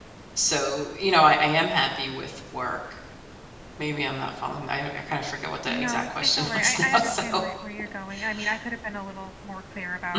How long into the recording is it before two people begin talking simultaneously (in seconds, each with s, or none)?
5.7 s